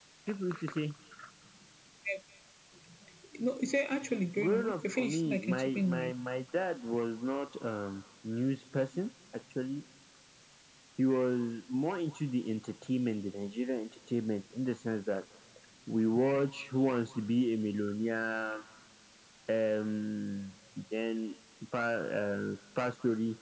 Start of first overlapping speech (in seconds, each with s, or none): 4.4 s